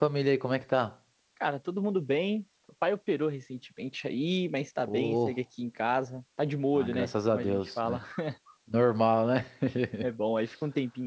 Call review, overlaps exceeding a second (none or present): present